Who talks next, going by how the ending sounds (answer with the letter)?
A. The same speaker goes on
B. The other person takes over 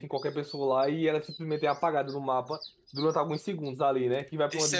B